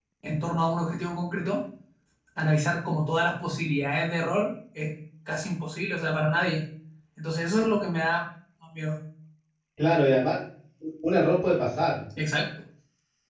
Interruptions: none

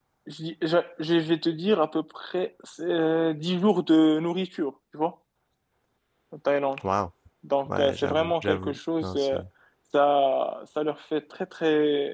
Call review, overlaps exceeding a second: present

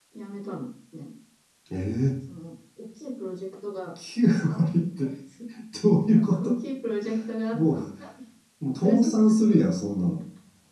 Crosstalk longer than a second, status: none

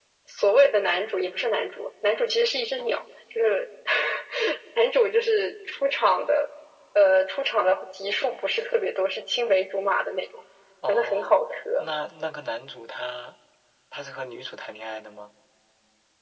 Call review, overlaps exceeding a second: none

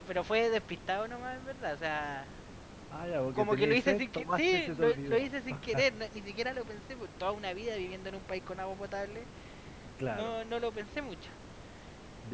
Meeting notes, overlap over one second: present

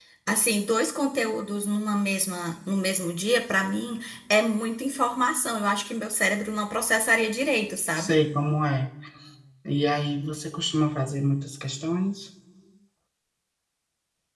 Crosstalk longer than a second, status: none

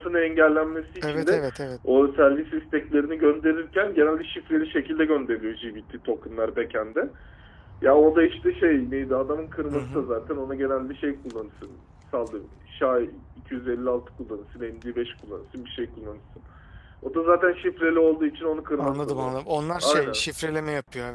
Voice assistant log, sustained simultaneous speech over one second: none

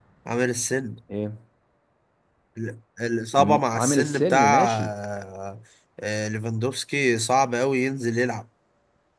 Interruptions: present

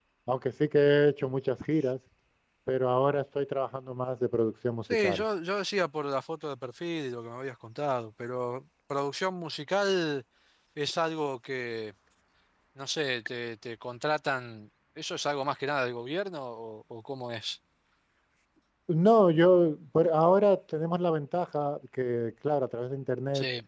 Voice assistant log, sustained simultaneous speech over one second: none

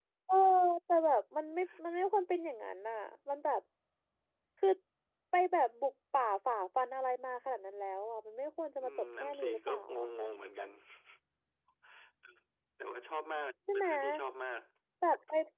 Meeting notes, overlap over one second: present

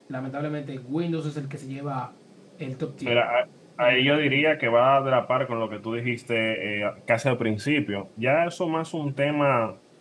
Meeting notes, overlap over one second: none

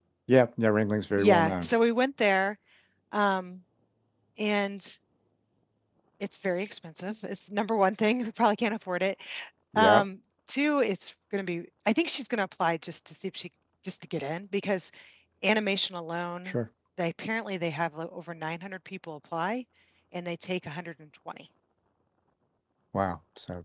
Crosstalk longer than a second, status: none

